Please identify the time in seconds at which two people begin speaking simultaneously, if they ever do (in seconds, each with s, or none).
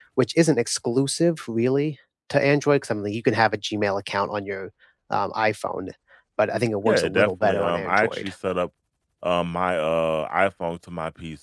6.8 s